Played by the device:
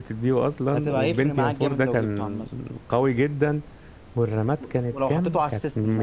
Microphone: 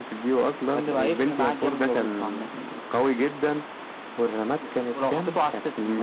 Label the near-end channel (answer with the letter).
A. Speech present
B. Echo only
B